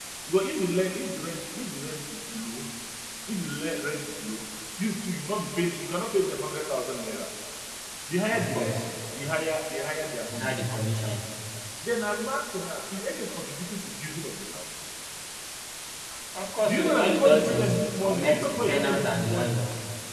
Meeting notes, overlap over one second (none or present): present